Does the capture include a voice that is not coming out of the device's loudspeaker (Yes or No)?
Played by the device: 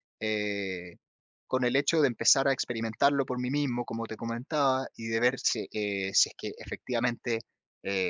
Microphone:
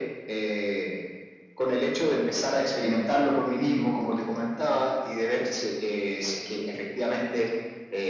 No